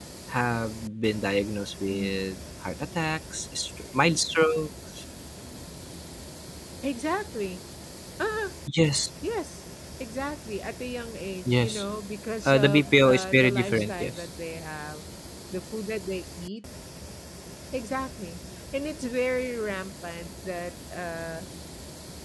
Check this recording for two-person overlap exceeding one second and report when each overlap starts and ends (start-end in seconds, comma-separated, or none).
12.4-14.2